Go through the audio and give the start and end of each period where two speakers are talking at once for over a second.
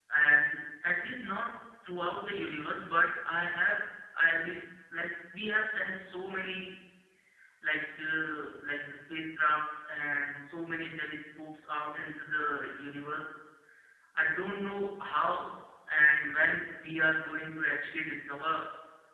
none

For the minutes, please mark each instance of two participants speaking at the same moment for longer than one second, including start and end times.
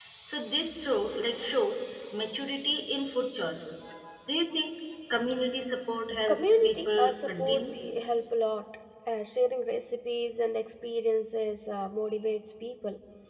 6.3-7.7

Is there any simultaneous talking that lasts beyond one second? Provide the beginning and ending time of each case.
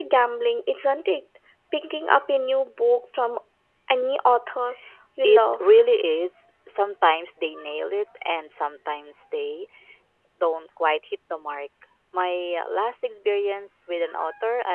none

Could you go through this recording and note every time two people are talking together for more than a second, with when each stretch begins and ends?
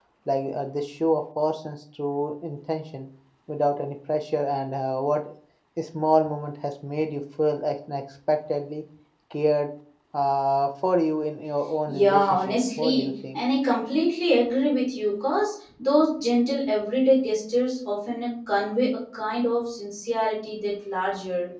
11.9-13.4

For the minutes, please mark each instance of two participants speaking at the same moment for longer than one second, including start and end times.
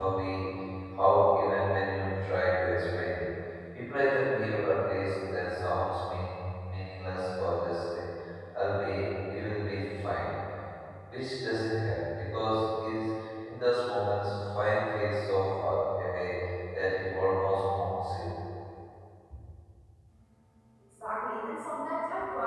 none

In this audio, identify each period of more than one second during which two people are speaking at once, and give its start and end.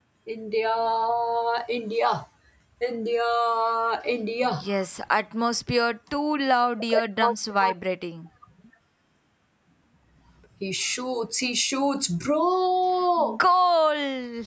none

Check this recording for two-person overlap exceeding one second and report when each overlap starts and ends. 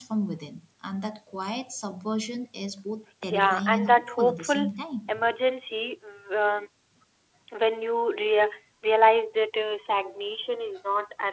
3.3-4.7

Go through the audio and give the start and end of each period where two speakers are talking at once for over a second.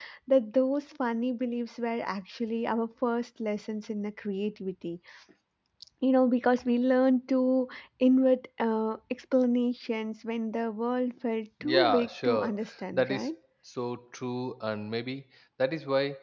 11.6-13.3

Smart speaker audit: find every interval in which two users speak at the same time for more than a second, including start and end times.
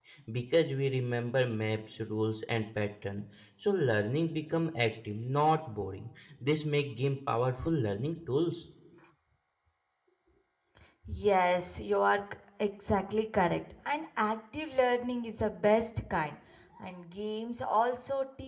none

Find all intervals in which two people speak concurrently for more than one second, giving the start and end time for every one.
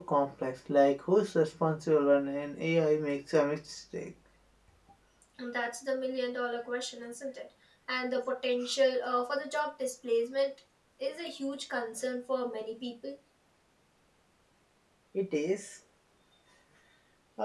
none

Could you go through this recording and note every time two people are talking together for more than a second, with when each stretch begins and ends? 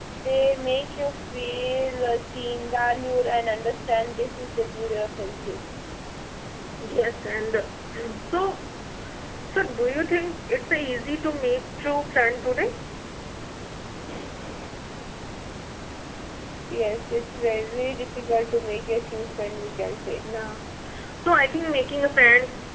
none

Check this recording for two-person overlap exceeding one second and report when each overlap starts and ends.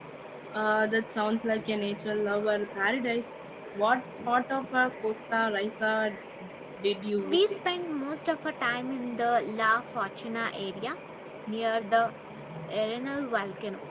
none

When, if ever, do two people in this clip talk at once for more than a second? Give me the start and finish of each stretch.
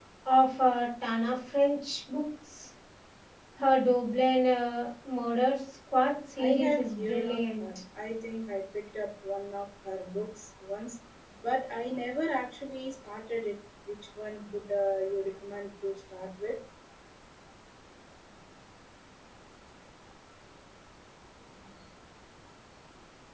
6.4-7.7

